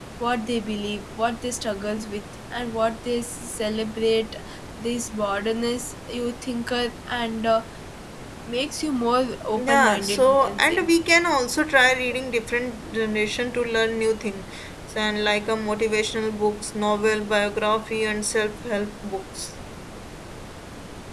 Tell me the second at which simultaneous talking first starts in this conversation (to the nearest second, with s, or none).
10 s